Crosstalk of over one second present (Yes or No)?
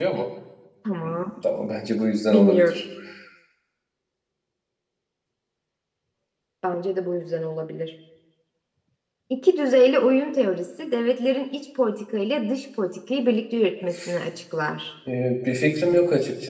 No